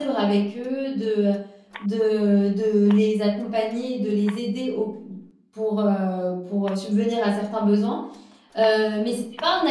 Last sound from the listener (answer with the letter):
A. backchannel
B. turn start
A